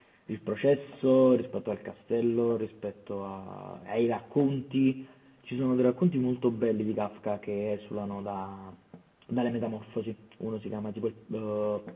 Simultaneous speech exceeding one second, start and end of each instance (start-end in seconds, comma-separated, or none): none